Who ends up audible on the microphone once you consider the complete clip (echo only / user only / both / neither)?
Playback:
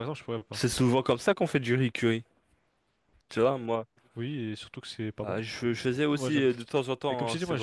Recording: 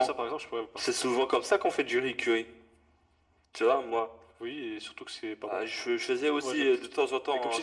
echo only